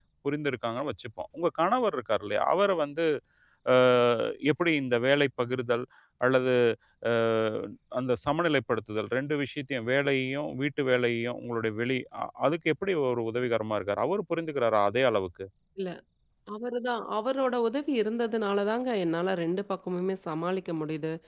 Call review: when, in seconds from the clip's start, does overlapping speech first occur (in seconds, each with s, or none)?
none